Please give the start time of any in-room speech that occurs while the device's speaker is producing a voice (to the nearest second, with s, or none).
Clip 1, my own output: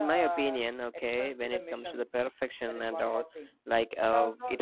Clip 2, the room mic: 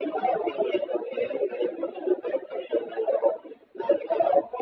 none